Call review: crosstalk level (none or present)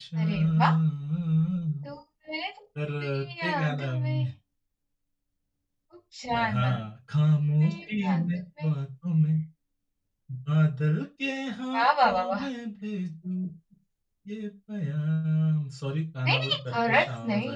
present